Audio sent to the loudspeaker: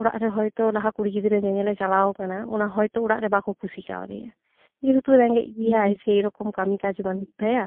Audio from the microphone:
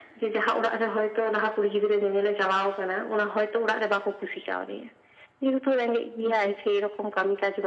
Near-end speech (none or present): none